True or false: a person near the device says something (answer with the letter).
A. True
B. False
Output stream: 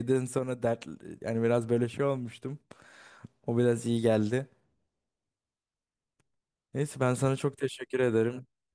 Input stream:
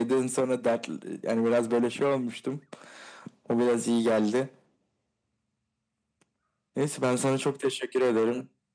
B